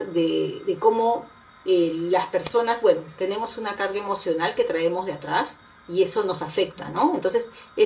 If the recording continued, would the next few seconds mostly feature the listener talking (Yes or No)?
No